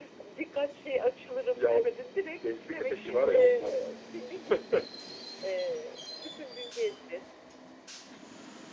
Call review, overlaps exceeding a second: present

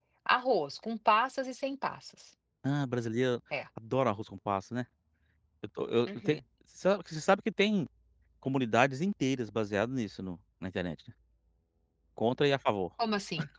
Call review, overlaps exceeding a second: none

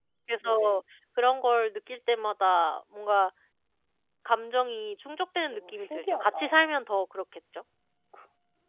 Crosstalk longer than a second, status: present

